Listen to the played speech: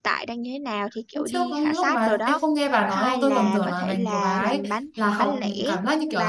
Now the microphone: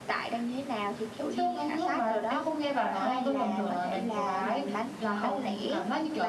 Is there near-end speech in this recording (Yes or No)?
No